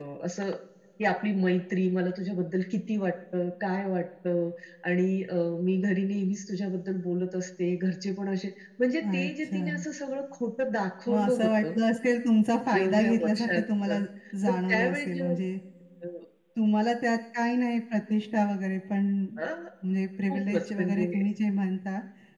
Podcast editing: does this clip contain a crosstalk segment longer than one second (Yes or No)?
Yes